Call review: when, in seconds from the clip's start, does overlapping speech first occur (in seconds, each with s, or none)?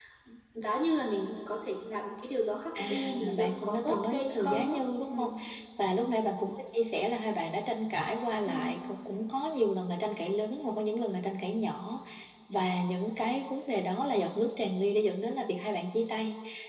2.8 s